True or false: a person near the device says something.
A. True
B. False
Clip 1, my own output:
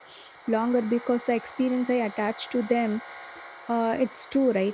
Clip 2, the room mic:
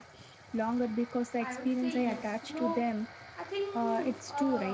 A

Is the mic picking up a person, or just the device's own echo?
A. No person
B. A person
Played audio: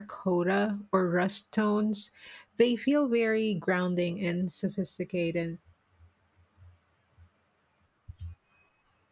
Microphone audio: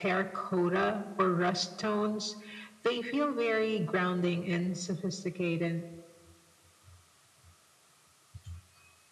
A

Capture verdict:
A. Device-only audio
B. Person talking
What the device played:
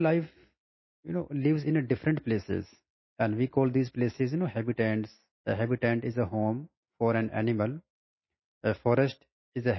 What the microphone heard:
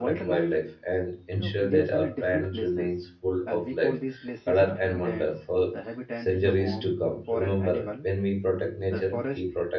B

